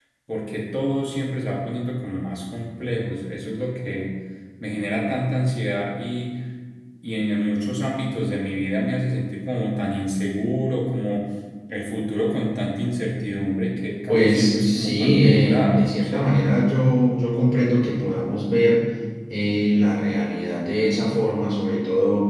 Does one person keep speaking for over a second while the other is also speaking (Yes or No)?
Yes